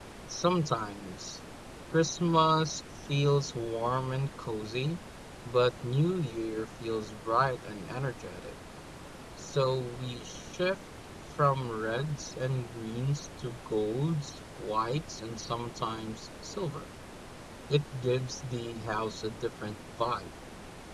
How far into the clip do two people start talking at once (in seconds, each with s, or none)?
none